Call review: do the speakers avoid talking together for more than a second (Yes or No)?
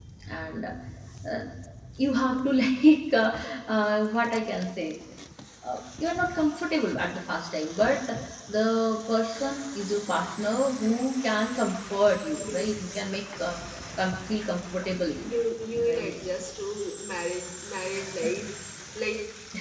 Yes